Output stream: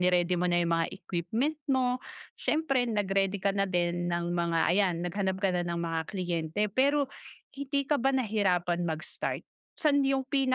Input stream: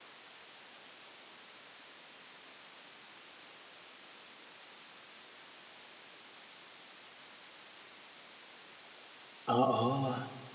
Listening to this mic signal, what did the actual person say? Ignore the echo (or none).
Oo,